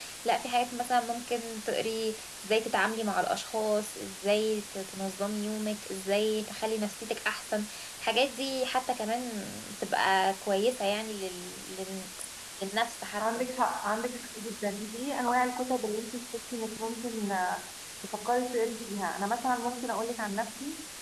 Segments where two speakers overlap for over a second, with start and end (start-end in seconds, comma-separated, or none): none